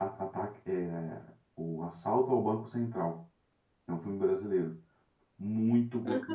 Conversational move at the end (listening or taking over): listening